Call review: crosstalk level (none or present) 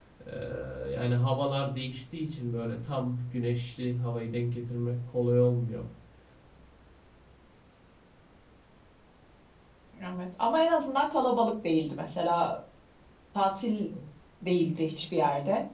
none